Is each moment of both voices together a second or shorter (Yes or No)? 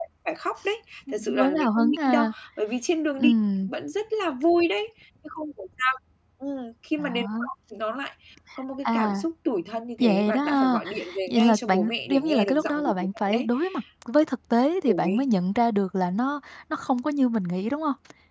No